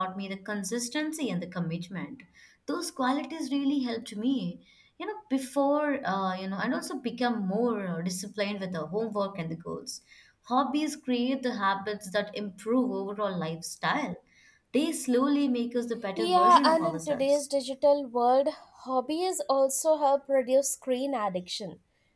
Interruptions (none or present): present